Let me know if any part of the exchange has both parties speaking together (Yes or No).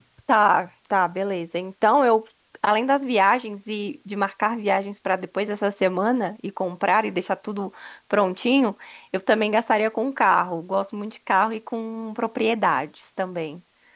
No